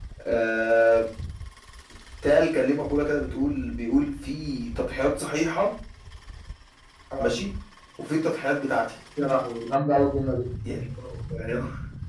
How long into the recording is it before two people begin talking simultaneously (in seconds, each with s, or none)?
none